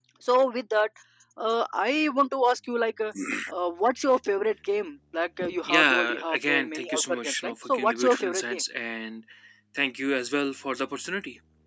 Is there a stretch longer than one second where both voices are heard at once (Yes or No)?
Yes